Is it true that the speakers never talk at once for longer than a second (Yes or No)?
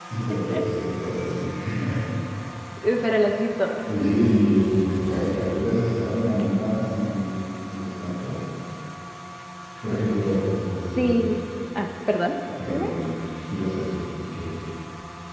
Yes